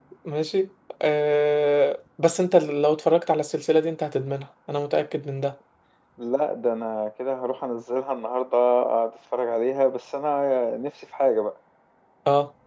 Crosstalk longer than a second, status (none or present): none